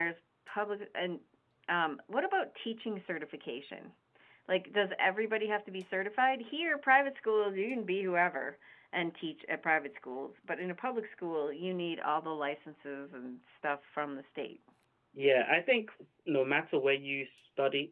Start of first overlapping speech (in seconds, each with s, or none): none